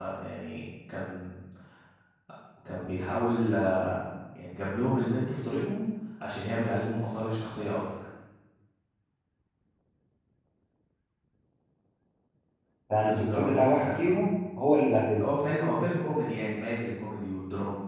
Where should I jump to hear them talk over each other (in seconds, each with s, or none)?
13.0 s